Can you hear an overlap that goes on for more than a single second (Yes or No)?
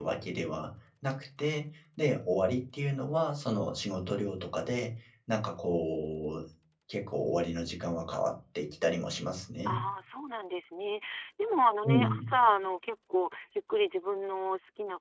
No